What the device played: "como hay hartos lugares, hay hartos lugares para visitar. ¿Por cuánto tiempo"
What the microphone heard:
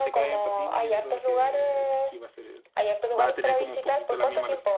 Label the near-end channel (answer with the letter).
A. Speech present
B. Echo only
A